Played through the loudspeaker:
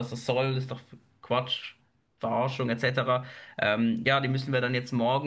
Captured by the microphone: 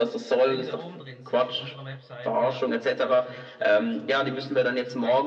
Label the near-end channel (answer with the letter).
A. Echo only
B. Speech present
B